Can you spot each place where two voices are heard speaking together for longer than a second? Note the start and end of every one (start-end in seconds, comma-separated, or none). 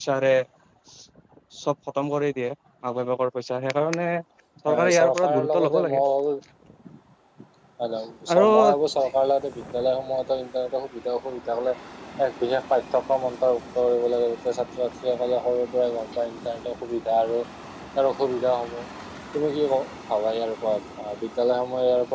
4.7-6.0